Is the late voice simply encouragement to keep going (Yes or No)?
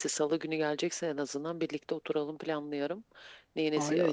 No